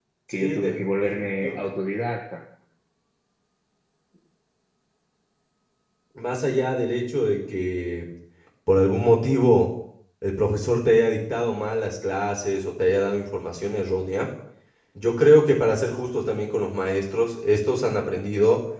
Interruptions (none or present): present